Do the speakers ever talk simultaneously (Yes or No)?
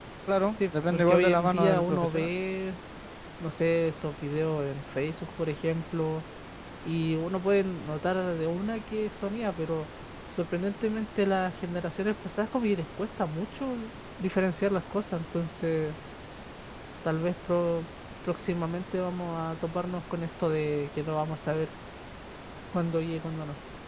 Yes